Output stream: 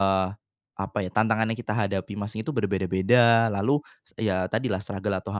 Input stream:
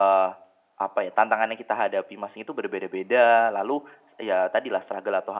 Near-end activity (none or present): none